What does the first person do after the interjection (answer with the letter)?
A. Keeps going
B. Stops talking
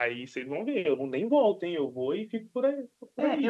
B